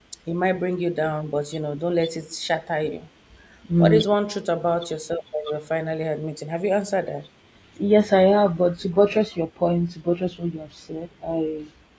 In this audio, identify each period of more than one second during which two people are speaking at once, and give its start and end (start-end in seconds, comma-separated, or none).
none